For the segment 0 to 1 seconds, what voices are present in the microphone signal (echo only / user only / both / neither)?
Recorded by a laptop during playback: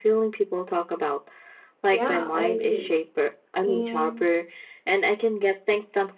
echo only